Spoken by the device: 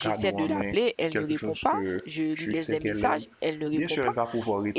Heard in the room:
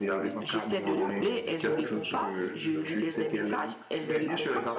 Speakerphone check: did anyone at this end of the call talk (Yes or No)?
Yes